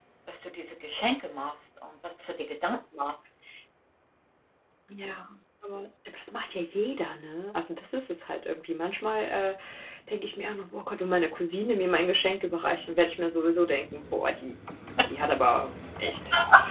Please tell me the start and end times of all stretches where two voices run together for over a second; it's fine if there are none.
none

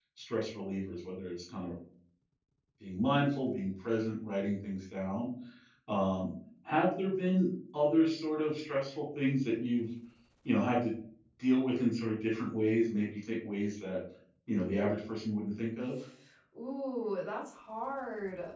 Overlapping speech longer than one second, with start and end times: none

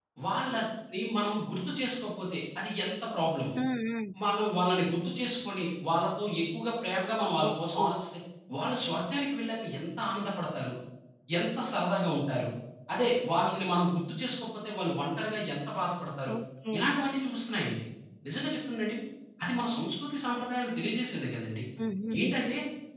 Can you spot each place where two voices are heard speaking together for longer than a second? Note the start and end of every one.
none

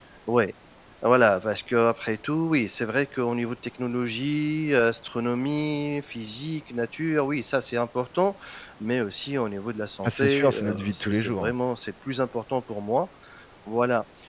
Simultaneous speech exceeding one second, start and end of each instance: 10.0-11.5

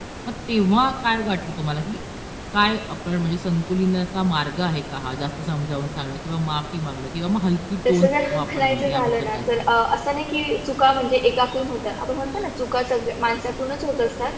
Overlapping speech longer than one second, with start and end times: 7.9-9.6

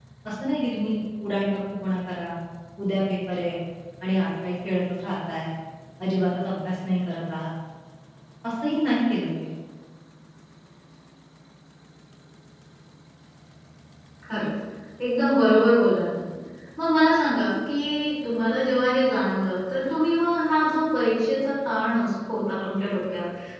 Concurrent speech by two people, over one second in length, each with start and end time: none

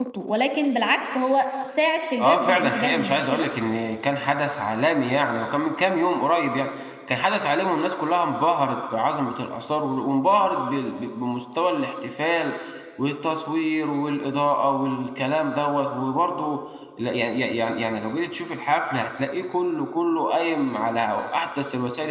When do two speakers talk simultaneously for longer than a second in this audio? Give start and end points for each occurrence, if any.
2.2-3.5

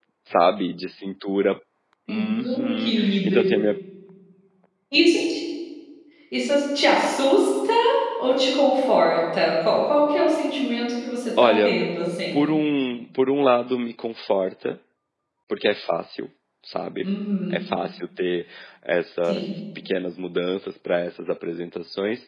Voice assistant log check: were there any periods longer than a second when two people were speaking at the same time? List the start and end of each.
2.1-3.4

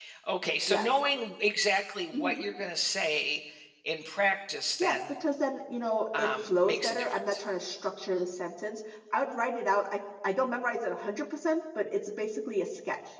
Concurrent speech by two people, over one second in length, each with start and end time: 6.2-7.4

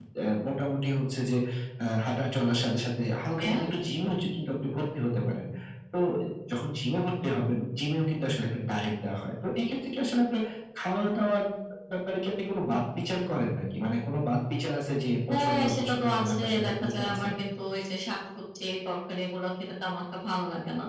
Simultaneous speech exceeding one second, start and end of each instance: 15.3-17.3

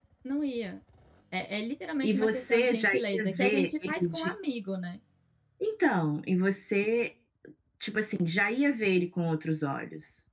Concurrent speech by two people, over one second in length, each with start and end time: 2.0-4.3

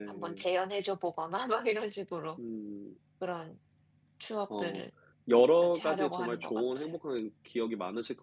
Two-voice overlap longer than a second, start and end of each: 5.6-6.9

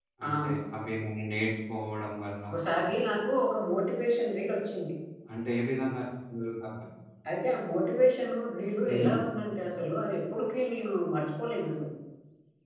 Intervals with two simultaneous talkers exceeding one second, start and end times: none

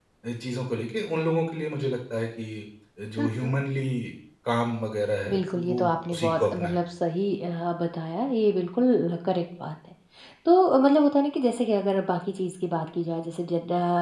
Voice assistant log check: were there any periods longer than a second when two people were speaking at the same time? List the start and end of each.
5.3-6.8

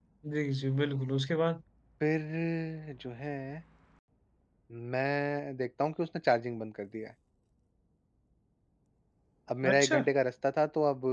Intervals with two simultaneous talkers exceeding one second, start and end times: none

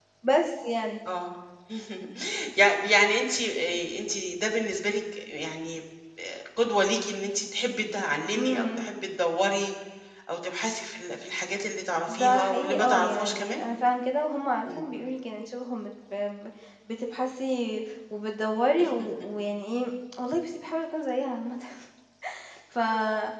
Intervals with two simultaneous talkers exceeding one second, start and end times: 12.1-13.6

